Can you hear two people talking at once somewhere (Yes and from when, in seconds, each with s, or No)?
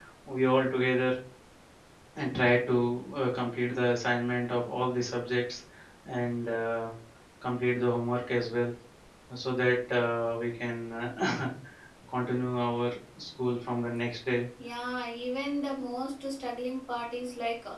No